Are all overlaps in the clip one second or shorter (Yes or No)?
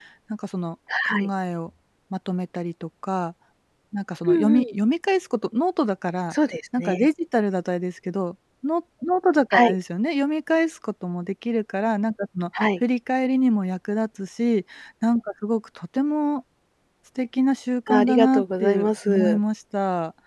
No